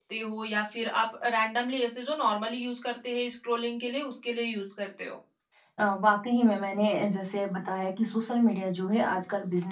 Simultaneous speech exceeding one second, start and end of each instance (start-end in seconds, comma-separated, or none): none